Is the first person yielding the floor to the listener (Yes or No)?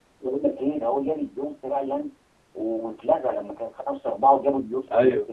Yes